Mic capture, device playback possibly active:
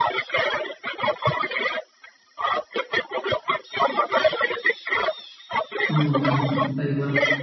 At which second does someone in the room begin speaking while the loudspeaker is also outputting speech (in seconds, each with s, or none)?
5.9 s